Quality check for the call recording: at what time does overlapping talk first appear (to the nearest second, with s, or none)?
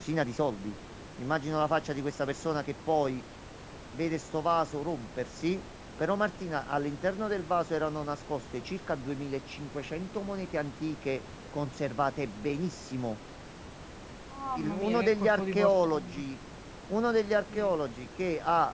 15 s